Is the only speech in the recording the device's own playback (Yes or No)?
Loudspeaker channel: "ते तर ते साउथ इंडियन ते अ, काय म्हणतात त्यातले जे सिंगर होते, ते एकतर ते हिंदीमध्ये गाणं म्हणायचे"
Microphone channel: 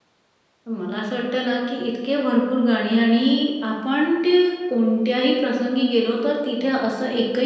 No